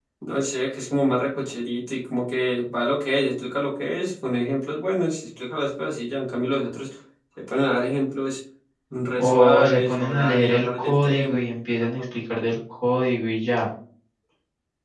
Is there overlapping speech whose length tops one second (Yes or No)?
Yes